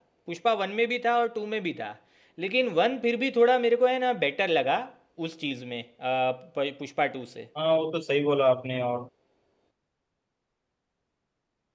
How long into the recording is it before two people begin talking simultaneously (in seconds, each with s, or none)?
none